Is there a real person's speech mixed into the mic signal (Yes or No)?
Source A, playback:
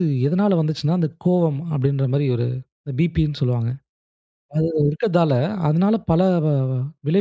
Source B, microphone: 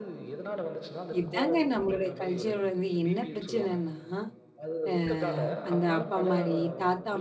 Yes